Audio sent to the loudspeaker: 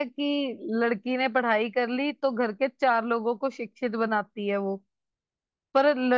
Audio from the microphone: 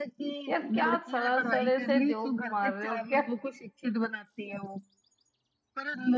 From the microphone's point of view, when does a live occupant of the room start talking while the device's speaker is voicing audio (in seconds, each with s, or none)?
0.5 s